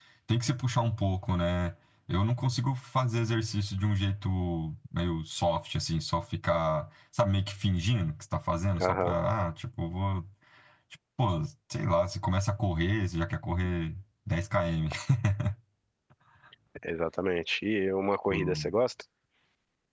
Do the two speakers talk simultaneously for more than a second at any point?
No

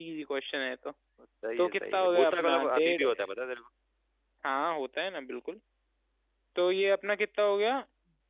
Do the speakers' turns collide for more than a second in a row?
Yes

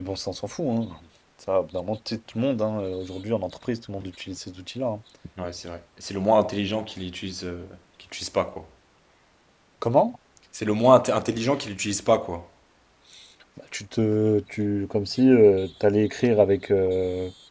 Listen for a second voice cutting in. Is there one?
No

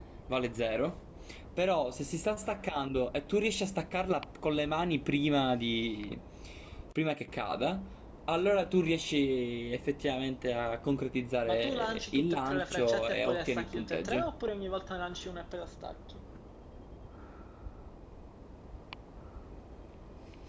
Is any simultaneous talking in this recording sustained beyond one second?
Yes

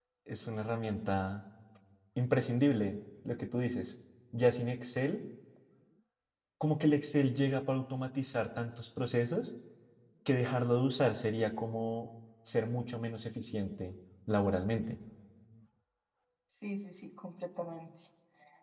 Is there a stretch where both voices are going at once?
No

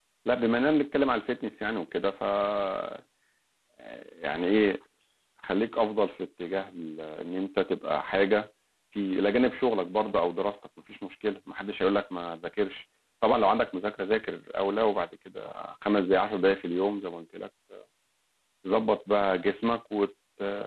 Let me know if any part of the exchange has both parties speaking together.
No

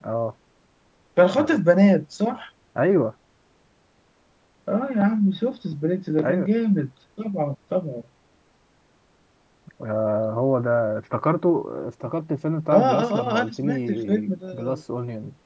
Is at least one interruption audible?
Yes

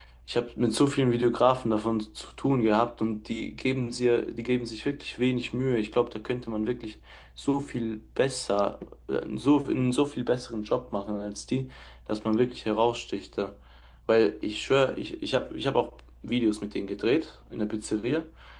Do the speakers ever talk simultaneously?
No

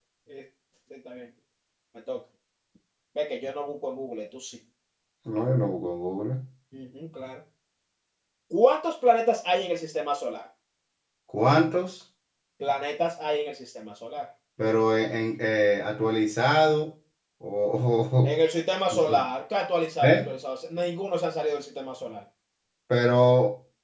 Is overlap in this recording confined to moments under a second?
Yes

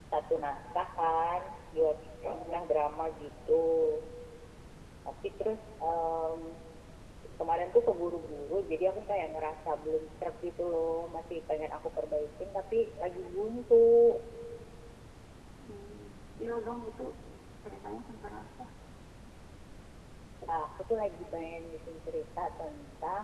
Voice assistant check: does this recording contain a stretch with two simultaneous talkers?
No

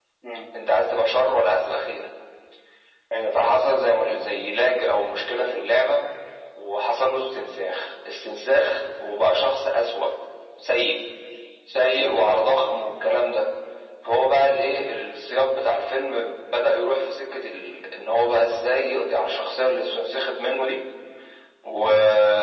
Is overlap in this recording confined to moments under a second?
Yes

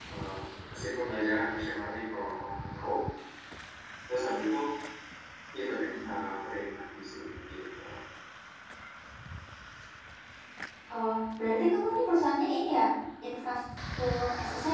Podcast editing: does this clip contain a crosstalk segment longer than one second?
No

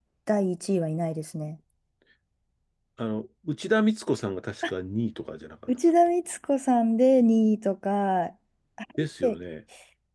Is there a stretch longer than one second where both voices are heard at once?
No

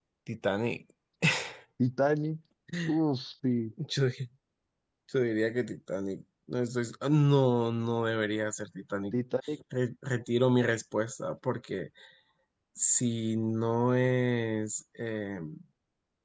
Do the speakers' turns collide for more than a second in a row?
No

